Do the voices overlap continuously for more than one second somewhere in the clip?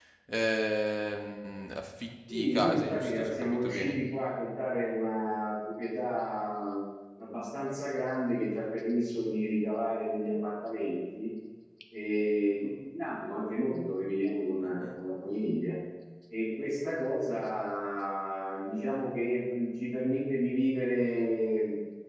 Yes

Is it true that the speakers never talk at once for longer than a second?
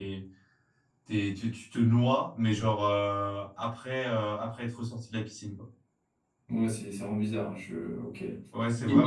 Yes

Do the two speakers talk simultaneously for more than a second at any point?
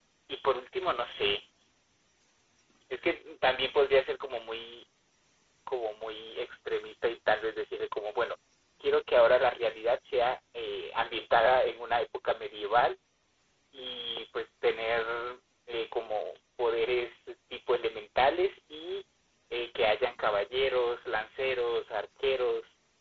No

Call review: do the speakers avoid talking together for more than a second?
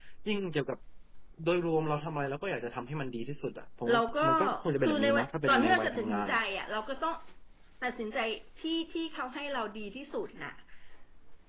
No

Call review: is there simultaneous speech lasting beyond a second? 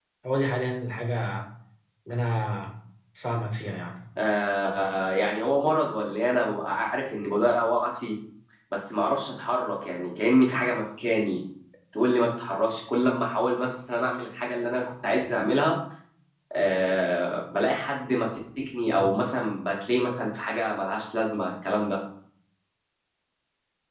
No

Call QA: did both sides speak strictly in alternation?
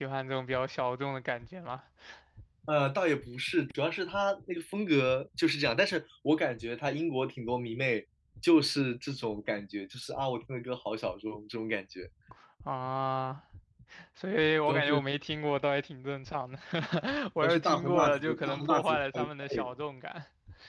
No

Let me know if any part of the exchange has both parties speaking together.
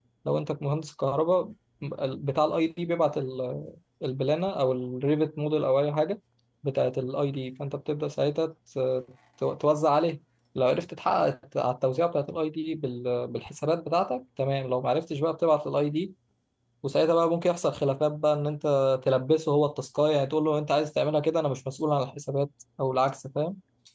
No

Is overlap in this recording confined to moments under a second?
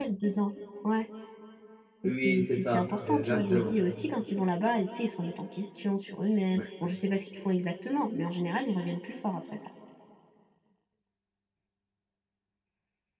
No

